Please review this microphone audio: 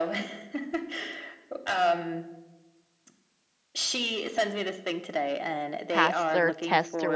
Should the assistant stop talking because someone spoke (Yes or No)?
Yes